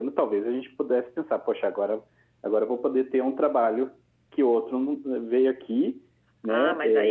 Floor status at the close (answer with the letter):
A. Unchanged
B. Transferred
B